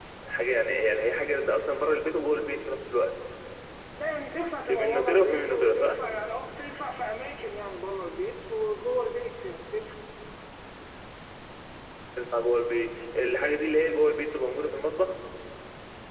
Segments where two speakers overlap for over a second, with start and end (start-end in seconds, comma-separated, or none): 4.7-5.9